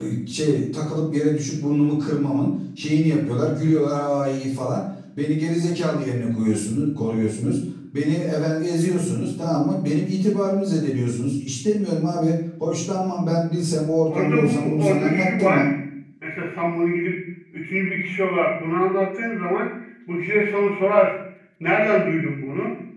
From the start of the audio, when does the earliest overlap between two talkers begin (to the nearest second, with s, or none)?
14 s